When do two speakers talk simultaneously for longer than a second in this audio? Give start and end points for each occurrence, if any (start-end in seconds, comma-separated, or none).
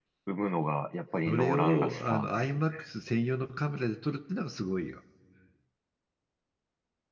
1.2-2.6